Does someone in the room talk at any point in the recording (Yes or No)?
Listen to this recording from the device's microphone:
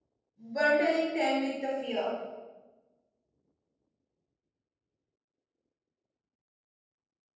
Yes